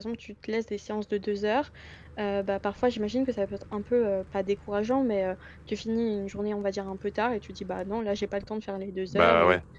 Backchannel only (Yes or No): Yes